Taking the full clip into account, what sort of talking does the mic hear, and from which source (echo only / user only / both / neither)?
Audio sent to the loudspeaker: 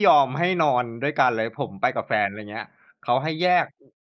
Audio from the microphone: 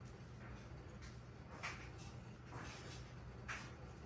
neither